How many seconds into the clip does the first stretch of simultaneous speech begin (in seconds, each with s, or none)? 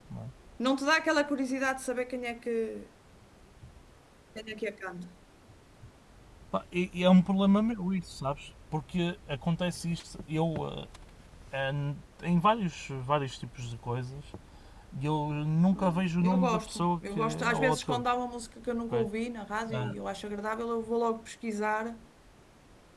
15.7 s